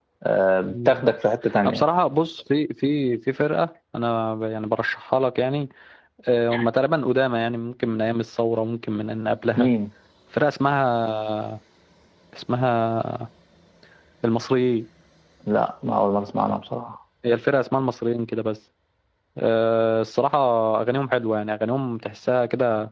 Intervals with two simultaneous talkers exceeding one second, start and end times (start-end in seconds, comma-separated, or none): none